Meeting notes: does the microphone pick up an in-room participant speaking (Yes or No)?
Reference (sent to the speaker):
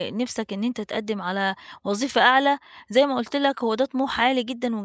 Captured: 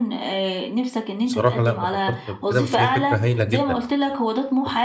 Yes